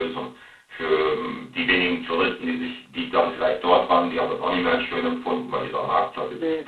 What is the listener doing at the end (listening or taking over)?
listening